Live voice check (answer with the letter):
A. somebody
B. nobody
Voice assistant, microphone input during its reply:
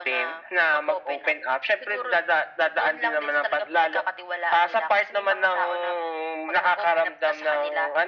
B